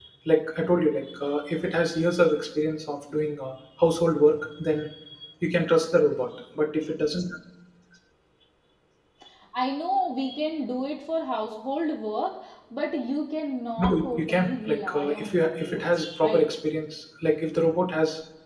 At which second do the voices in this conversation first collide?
13.8 s

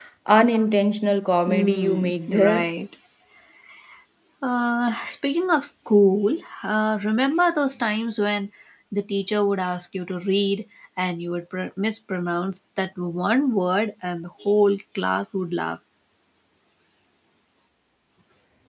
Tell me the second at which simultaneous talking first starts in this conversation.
1.5 s

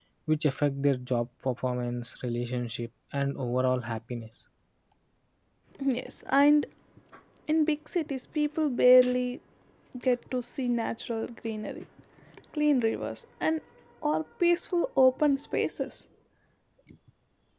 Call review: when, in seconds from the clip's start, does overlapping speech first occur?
none

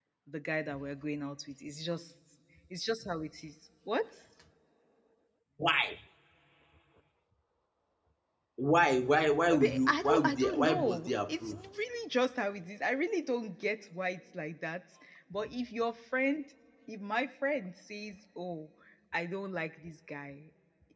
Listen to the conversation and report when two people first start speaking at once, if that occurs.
9.5 s

